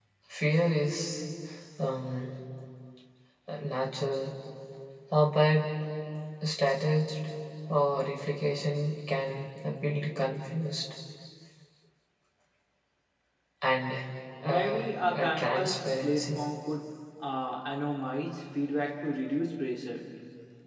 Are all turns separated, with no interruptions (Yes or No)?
No